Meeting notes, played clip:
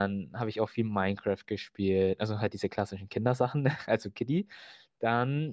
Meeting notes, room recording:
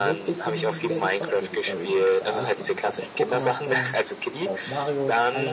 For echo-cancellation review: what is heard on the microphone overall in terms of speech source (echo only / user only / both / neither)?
both